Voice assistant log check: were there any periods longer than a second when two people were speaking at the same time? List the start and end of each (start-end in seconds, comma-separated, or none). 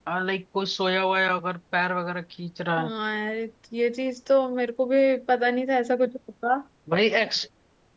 none